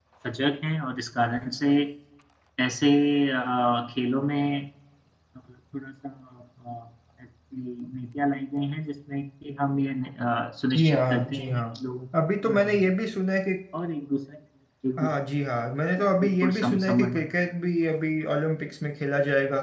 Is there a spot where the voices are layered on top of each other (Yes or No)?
Yes